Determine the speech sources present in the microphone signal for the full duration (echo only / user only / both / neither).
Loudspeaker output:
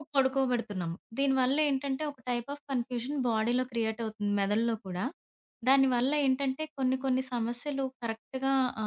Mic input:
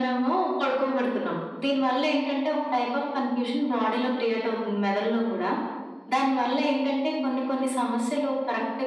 echo only